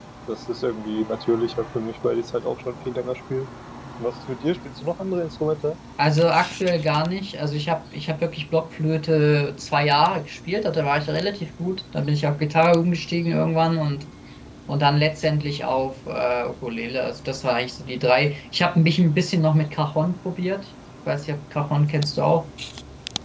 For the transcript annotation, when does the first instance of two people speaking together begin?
none

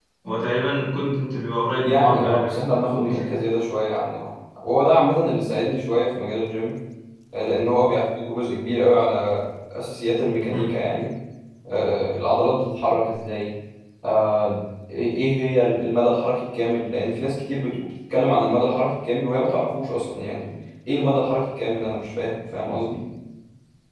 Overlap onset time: 1.8 s

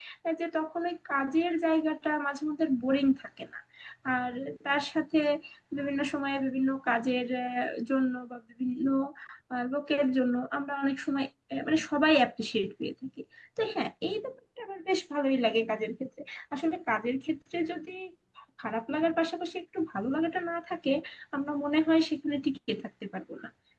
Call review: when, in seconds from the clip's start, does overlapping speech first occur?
none

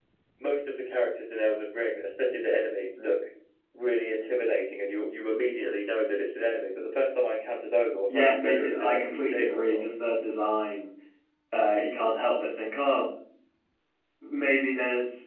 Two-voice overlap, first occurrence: 8.1 s

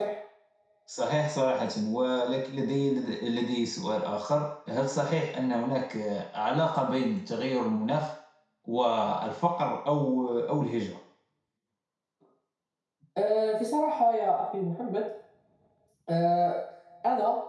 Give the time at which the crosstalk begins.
none

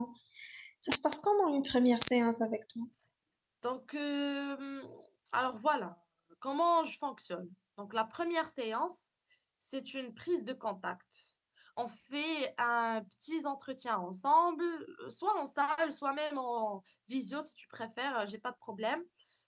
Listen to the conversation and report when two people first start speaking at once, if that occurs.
none

